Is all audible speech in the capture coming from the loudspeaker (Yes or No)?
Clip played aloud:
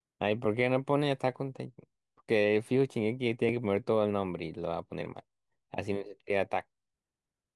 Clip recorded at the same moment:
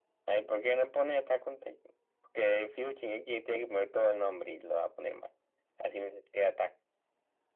Yes